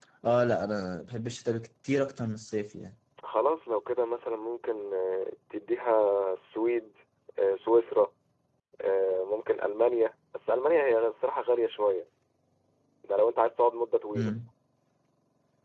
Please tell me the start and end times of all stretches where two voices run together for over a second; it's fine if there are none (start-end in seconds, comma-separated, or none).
none